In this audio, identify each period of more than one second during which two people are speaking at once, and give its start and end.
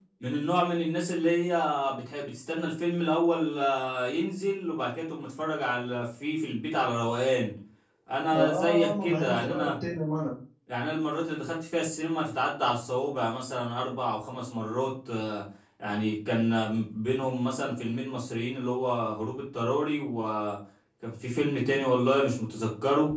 8.3-9.7

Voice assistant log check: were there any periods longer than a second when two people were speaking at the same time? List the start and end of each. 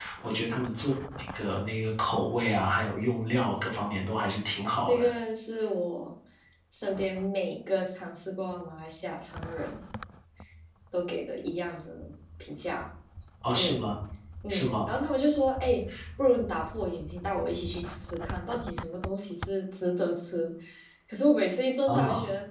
none

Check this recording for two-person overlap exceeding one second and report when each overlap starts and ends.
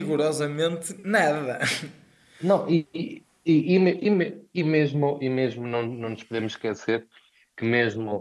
none

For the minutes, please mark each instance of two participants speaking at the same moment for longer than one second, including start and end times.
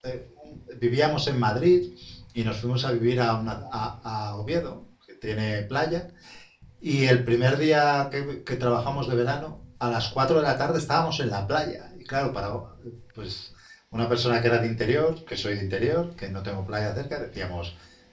none

